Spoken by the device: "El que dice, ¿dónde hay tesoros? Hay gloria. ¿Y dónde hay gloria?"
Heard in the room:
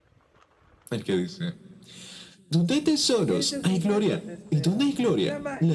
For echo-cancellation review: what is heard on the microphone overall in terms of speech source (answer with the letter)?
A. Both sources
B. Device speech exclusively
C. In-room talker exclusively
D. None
A